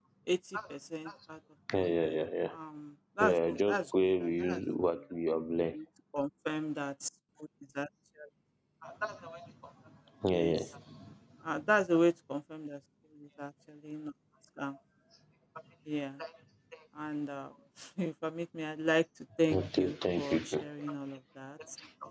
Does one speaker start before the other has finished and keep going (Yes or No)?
Yes